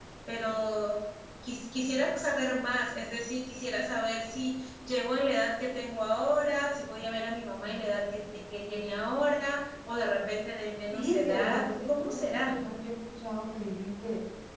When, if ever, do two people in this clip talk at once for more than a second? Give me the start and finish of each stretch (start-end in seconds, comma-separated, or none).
10.9-12.6